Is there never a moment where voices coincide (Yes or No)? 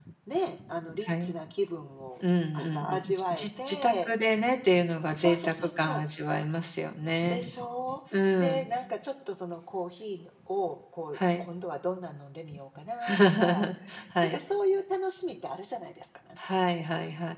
No